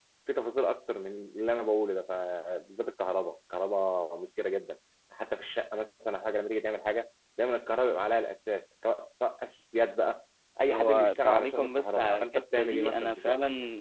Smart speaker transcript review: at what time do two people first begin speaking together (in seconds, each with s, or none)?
10.7 s